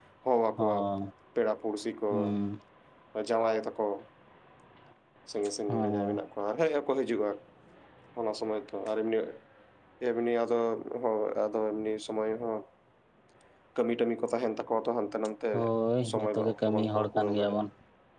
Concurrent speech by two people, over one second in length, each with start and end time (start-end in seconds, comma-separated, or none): 16.1-17.6